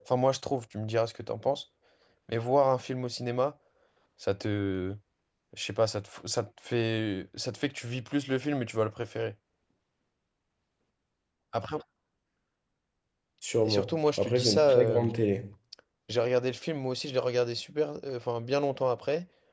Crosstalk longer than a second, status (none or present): present